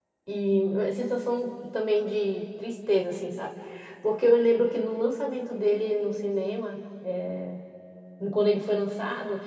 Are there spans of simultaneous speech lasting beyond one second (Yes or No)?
No